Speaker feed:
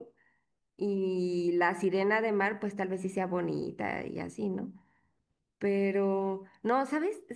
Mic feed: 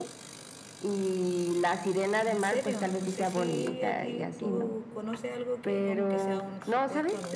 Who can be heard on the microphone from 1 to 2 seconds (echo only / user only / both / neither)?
echo only